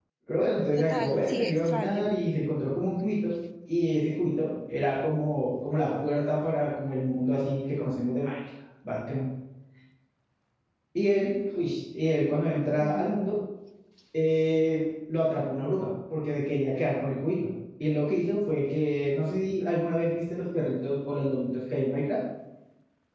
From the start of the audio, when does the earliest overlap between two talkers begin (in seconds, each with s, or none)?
0.8 s